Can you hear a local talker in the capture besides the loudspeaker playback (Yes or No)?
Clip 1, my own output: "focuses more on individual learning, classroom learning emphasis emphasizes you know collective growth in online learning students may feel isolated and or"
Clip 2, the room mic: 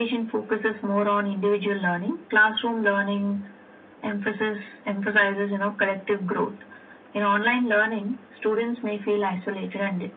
No